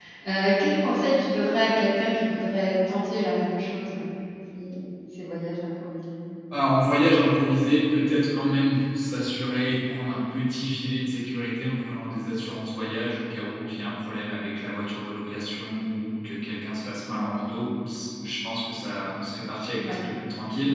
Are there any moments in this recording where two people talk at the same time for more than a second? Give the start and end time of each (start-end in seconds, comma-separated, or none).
none